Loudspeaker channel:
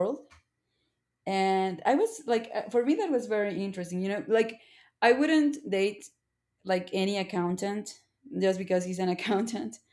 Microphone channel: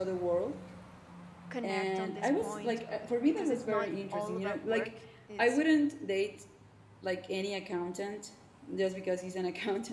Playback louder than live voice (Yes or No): Yes